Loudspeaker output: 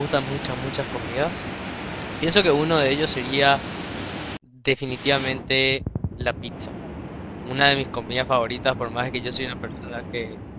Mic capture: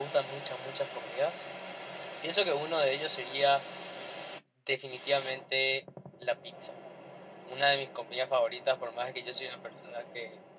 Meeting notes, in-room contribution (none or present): none